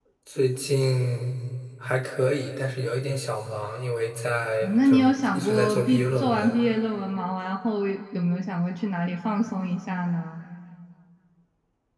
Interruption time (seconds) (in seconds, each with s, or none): 4.6 s